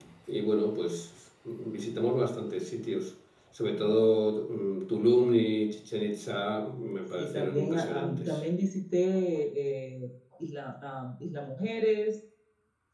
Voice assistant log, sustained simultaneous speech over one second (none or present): present